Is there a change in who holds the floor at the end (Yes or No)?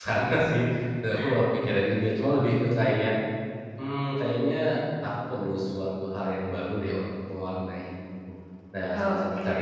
No